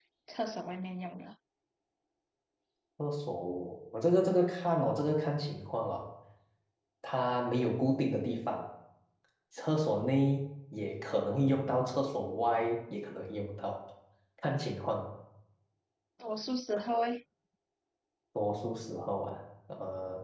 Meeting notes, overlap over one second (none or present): none